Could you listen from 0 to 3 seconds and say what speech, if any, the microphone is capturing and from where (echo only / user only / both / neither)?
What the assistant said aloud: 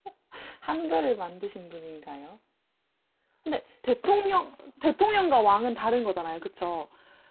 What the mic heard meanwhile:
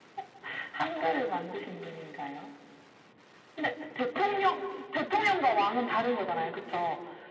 echo only